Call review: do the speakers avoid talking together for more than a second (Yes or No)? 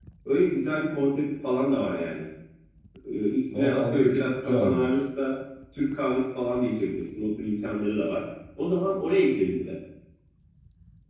No